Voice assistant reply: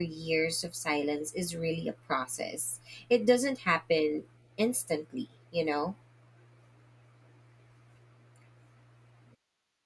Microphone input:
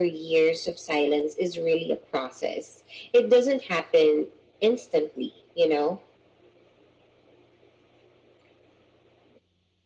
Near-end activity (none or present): none